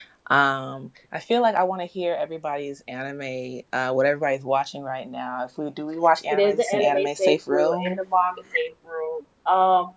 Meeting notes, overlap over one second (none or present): present